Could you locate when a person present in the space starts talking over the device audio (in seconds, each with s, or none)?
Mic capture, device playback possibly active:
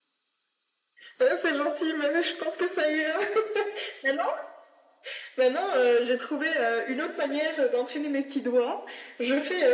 none